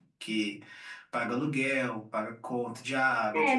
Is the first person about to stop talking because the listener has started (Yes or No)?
Yes